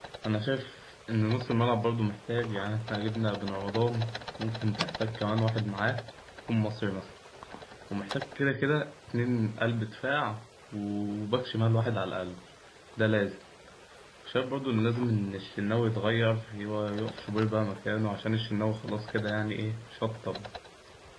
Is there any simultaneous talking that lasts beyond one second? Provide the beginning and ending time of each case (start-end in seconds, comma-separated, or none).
none